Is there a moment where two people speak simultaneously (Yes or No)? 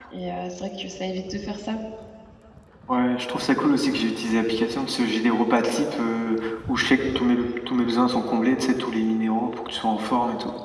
No